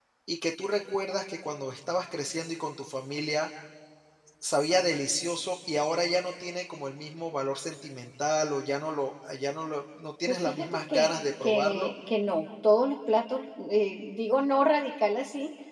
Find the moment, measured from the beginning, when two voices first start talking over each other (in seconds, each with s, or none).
10.3 s